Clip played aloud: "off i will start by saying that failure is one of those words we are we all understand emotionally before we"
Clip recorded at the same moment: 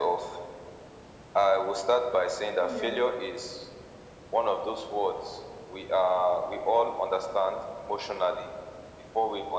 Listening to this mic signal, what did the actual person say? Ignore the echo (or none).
yes,